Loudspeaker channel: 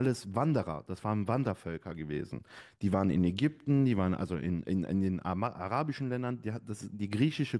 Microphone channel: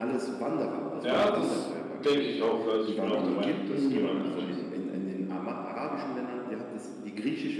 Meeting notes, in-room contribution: present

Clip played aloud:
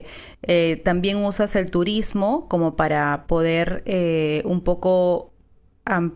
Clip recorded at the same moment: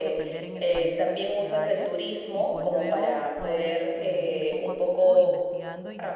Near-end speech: present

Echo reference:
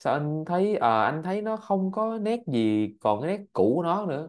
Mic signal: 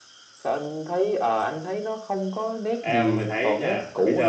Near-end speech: present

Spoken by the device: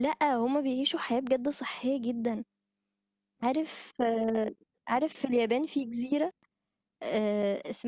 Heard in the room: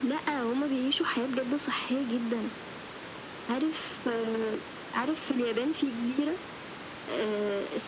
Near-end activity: none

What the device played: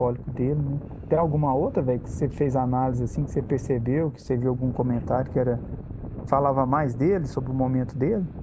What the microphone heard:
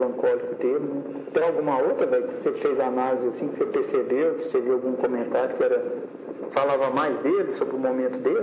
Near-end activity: none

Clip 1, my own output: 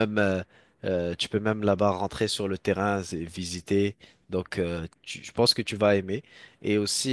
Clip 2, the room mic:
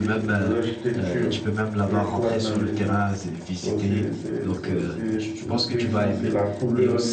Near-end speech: present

